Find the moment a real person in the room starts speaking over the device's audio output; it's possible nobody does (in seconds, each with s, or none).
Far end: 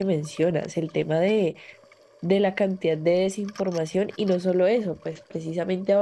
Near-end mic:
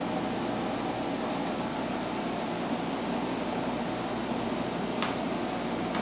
none